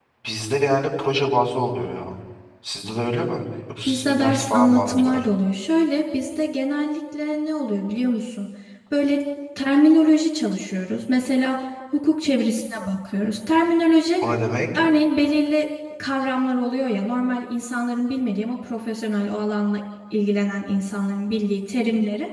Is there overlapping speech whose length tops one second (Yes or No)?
Yes